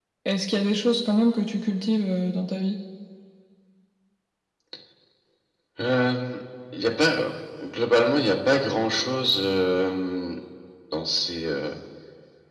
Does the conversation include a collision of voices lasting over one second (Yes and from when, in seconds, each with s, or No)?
No